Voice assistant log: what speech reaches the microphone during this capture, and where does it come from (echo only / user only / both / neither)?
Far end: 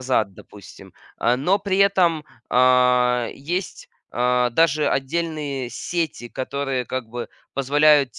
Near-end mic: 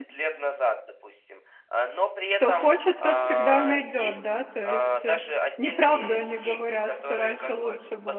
both